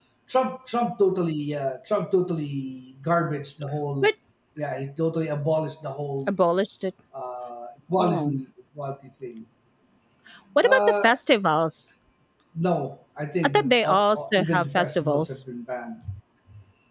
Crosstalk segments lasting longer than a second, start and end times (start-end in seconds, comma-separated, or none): 13.4-15.4